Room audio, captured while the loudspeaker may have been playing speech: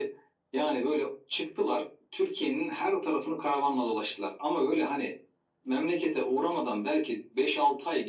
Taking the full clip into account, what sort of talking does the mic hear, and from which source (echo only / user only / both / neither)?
echo only